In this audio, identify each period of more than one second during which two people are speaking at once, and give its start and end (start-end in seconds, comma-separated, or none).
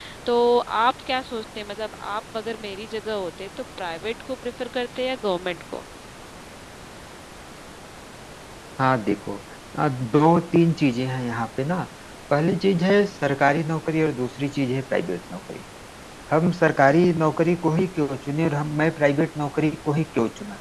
none